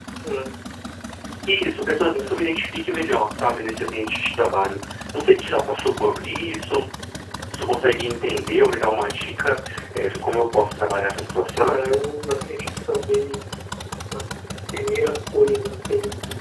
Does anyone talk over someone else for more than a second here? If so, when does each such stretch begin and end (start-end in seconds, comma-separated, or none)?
none